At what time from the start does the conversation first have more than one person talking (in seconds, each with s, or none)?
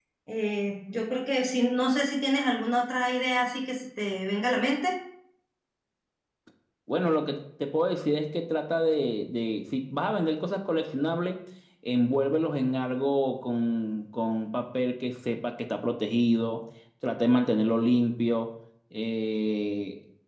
none